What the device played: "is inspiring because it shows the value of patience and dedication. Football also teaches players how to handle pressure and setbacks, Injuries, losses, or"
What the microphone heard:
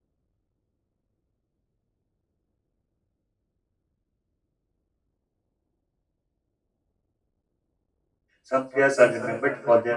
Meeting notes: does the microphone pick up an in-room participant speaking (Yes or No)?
Yes